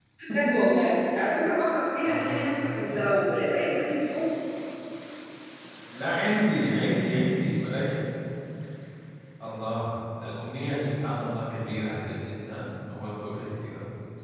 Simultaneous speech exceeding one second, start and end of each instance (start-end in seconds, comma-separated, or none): none